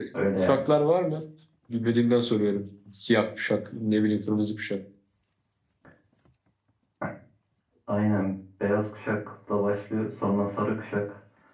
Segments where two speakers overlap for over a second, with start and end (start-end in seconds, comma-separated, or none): none